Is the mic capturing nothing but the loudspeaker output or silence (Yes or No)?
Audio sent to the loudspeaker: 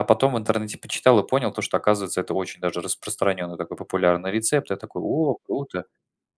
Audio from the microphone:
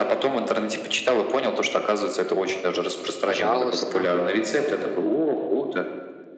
No